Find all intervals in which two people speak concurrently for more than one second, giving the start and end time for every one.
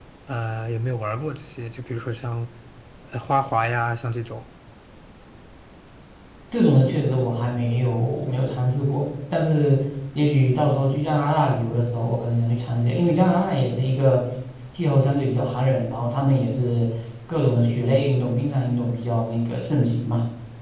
none

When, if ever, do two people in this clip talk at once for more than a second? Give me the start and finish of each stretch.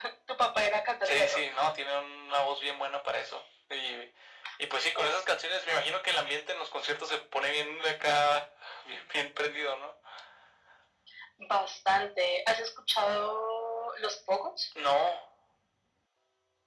none

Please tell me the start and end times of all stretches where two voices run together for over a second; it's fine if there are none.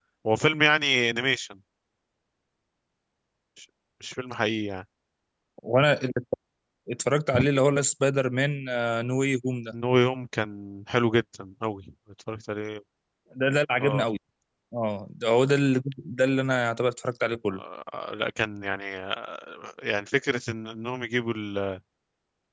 none

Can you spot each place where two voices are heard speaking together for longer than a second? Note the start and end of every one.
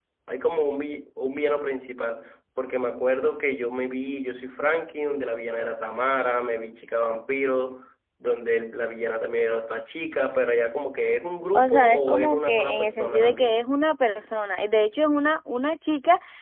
11.5-13.7

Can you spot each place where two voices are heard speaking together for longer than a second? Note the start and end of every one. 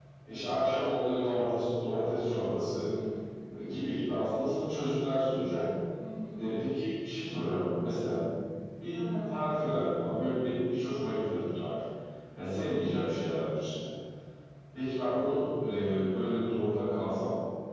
none

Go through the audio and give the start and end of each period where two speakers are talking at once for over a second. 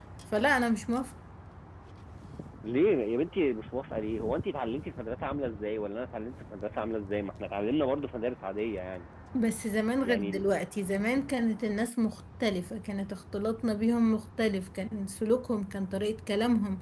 none

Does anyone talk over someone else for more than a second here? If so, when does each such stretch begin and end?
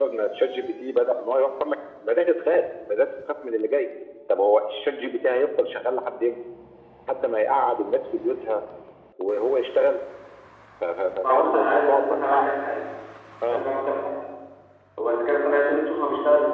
11.2-12.5

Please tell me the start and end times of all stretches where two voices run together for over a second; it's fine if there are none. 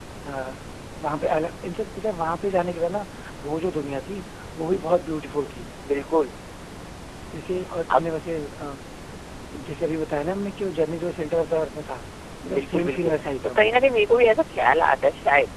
12.5-14.0

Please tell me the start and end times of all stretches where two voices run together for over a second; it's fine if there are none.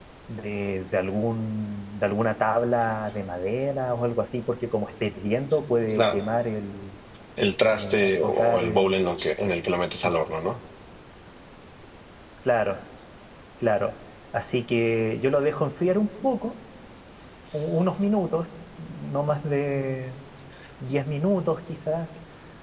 7.7-8.9

